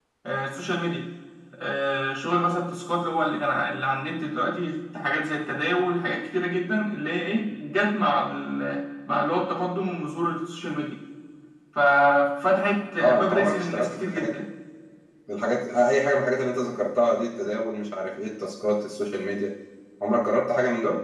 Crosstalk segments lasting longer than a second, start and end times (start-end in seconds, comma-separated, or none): 13.0-14.4